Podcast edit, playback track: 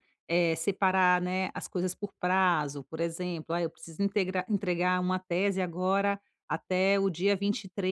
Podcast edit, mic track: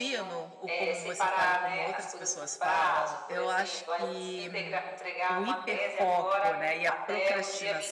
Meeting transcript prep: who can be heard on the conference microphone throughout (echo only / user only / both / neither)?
both